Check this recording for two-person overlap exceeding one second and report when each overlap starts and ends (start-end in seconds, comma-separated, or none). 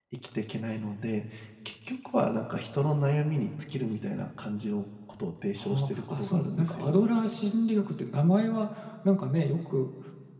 5.6-7.0